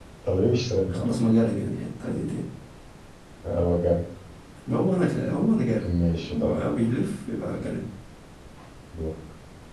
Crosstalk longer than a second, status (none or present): none